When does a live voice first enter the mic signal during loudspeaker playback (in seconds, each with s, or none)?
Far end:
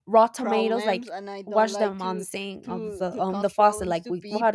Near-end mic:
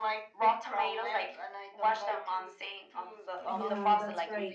3.4 s